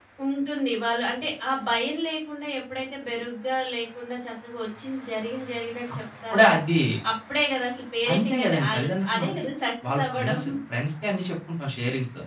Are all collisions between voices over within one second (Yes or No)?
No